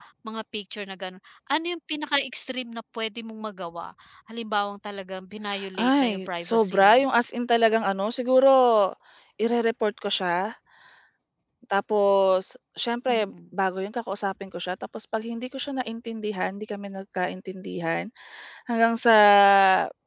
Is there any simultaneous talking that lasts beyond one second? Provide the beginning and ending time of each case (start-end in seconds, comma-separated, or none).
5.8-7.0